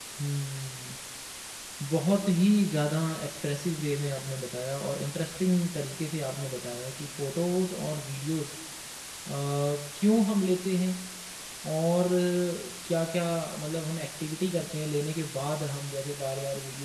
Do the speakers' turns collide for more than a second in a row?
No

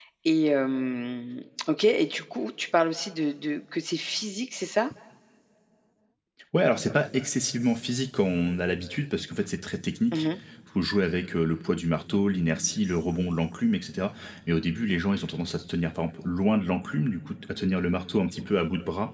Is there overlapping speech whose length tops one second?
No

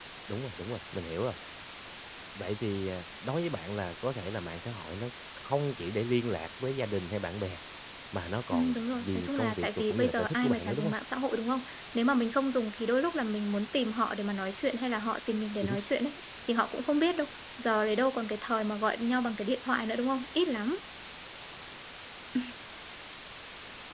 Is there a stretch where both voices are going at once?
Yes, from 8.5 s

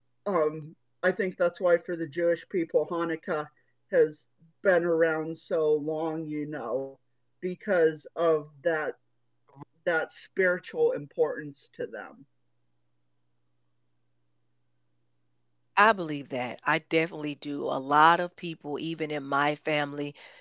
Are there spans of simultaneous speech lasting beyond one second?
No

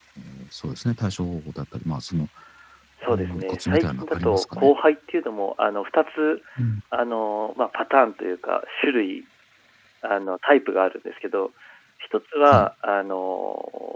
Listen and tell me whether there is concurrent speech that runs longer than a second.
Yes, from 3.1 s

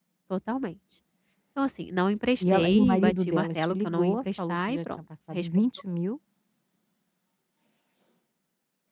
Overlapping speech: Yes, from 2.4 s

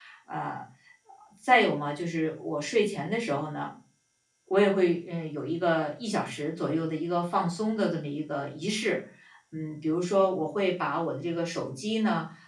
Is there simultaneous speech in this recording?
No

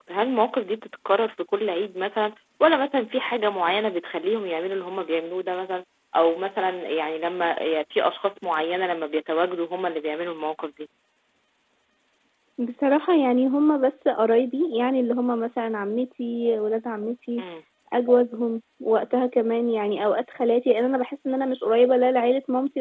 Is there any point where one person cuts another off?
No

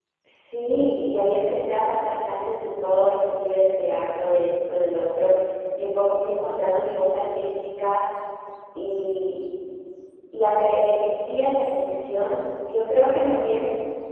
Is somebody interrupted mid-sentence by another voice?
No

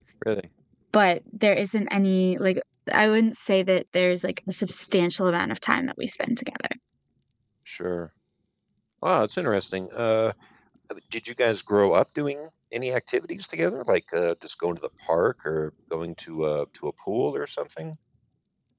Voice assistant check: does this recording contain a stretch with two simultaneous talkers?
No

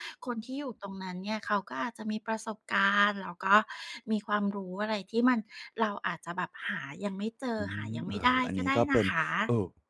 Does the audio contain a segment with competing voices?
Yes, from 7.6 s

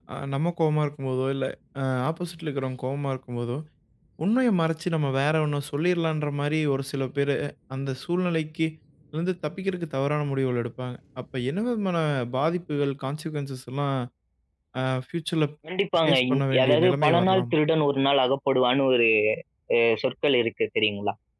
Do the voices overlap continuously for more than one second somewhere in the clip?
Yes, from 16.1 s

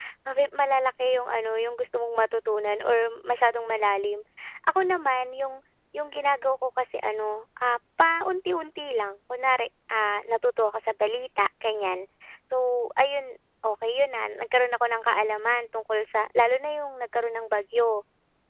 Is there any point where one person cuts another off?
No

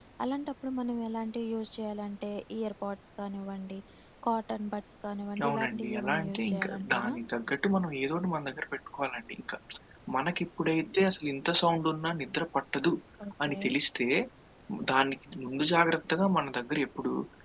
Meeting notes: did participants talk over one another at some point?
Yes, from 5.5 s

